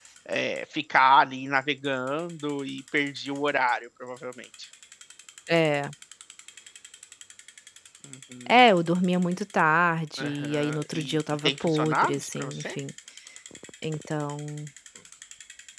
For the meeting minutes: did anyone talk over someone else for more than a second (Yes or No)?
Yes